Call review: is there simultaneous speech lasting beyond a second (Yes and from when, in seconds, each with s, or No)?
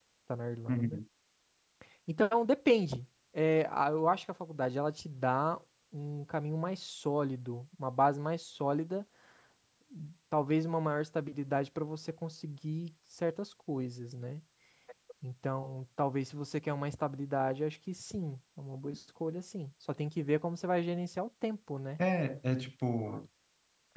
No